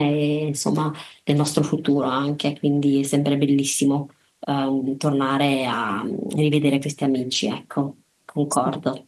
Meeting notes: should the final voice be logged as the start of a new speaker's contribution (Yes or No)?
Yes